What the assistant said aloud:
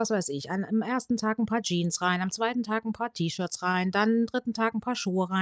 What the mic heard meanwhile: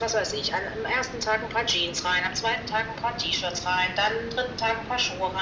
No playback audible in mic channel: No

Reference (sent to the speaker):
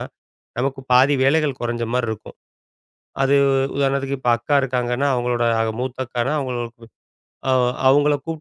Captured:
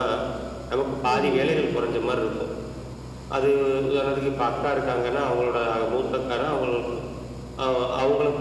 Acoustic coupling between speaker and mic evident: Yes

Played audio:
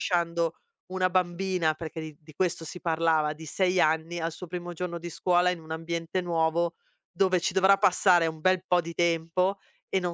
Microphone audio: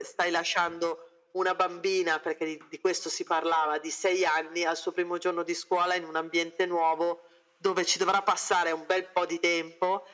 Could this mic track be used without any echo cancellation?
No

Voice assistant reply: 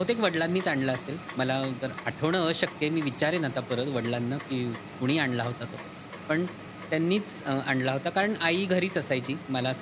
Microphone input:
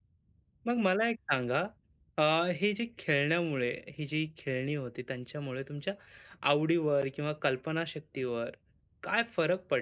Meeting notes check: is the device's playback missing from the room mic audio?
Yes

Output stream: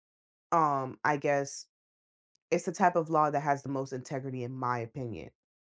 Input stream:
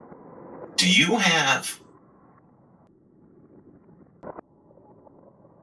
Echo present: No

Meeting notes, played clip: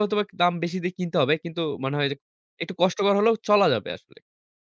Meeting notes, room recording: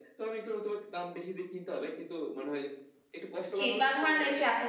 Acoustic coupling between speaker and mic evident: Yes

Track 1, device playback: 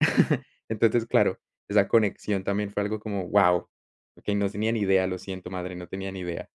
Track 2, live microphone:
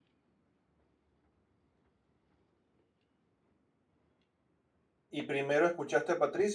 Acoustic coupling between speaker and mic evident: No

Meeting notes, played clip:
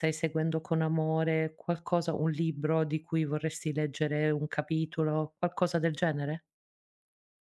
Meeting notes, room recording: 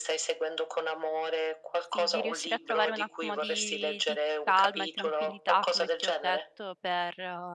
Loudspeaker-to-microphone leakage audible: Yes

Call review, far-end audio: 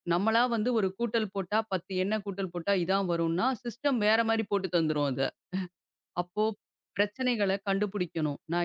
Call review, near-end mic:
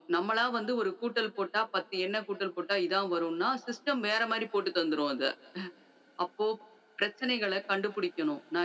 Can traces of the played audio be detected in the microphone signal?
Yes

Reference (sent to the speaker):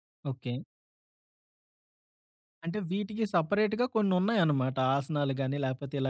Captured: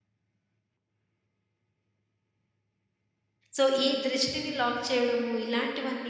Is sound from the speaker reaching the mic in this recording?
No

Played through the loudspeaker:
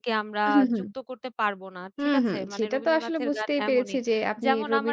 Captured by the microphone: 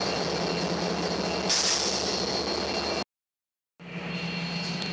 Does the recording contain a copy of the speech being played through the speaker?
No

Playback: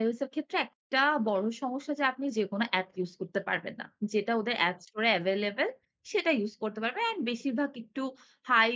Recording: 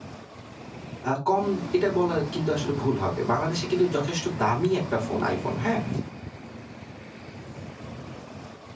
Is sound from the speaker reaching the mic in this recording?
No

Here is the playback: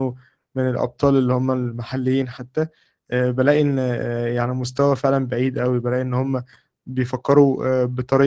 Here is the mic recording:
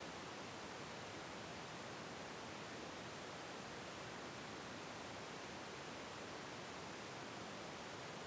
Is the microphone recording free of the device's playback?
Yes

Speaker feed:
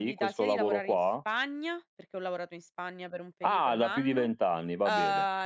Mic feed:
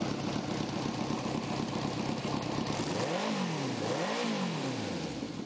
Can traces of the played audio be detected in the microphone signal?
No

